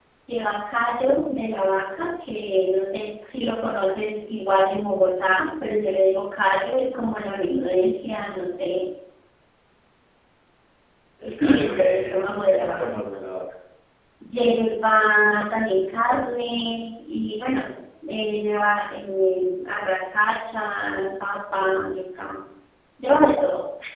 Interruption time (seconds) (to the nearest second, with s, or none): 11 s